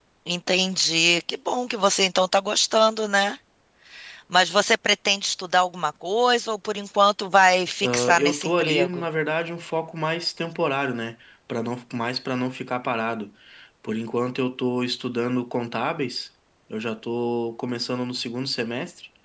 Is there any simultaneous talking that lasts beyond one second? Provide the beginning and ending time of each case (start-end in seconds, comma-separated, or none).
7.8-9.0